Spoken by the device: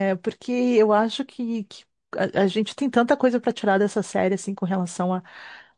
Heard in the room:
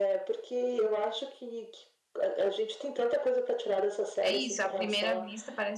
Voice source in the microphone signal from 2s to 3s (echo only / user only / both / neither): echo only